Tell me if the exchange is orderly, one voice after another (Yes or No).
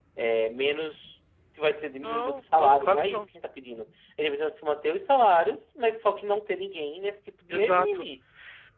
No